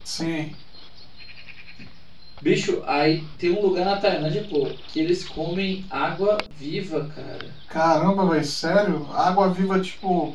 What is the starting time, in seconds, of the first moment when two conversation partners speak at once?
none

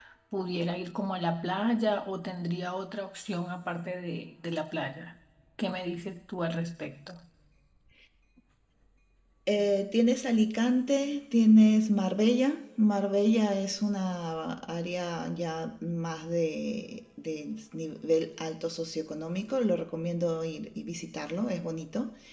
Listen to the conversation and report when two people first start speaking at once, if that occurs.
none

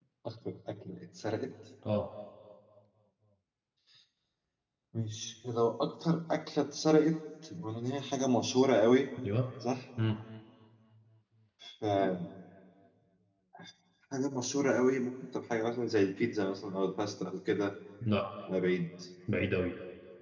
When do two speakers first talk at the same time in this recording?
none

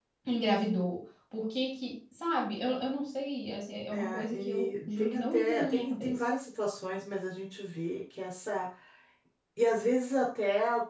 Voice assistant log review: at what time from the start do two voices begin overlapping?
4 s

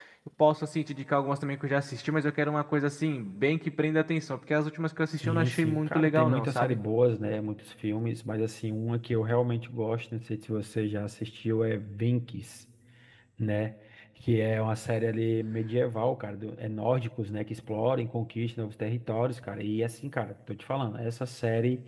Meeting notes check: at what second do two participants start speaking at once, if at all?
5 s

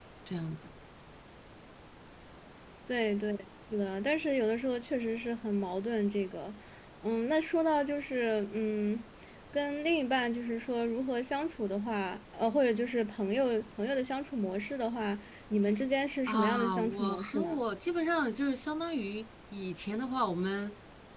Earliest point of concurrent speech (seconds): 16 s

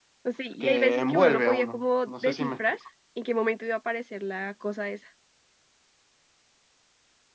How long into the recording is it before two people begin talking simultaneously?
1 s

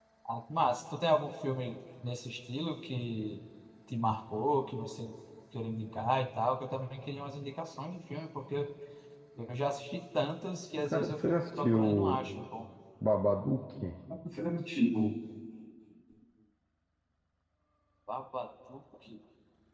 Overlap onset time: 11 s

